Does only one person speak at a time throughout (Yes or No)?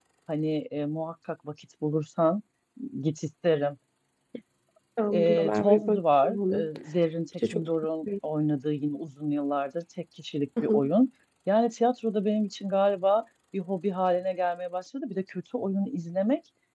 No